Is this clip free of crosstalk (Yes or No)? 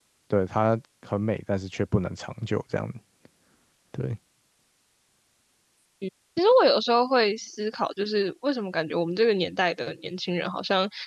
Yes